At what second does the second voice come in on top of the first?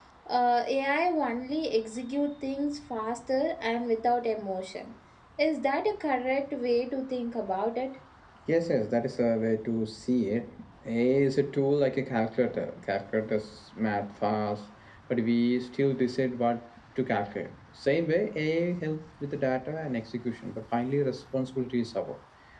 none

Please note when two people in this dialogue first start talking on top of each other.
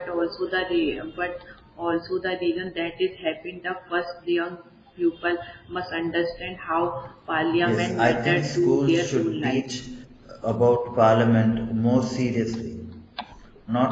7.6 s

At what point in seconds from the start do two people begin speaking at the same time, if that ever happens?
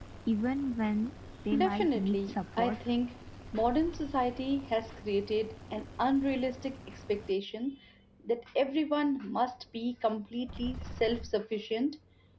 1.5 s

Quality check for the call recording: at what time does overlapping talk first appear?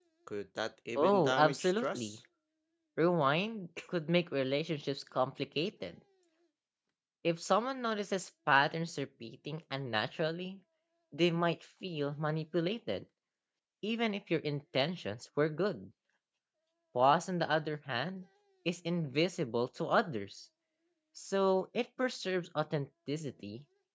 1.0 s

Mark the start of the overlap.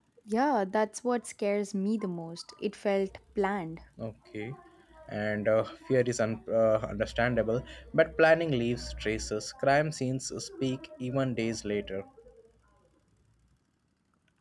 none

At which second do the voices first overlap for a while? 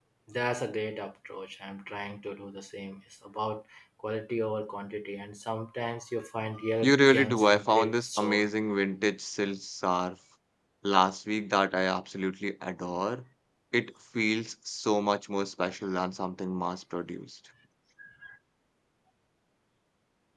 6.8 s

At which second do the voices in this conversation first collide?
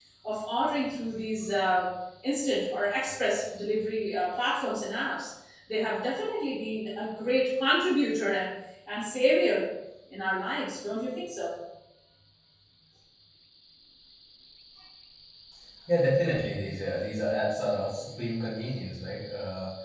none

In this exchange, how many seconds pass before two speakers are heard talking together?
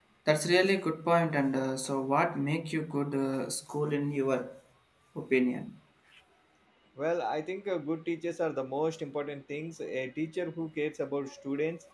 none

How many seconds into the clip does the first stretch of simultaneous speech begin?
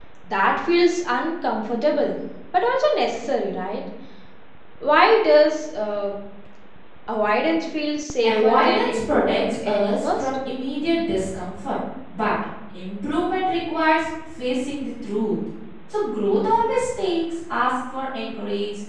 8.2 s

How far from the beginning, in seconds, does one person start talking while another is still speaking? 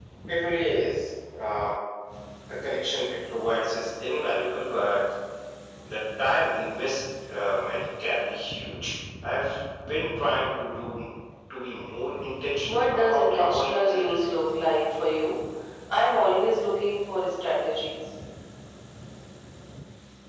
12.6 s

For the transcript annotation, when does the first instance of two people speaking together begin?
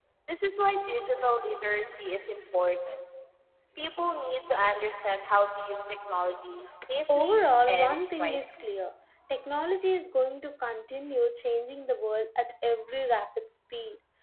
7.1 s

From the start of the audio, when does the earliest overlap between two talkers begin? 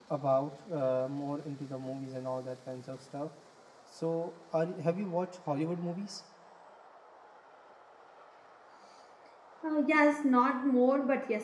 none

